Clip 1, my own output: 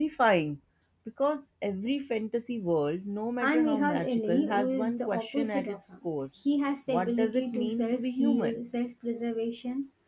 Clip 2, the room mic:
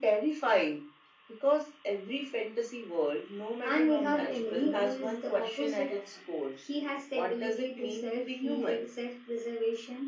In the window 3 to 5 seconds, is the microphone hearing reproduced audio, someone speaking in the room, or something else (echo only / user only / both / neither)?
echo only